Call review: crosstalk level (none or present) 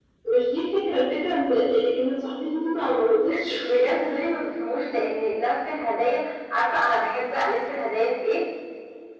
none